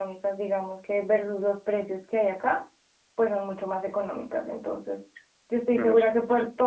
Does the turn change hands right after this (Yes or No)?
No